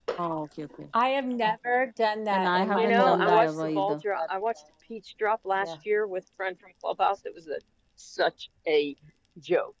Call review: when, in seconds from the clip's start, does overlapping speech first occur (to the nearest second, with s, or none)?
2 s